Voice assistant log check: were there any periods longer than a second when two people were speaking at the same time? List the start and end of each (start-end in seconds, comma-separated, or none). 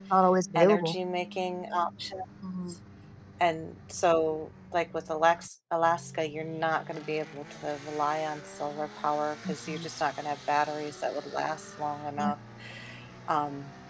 none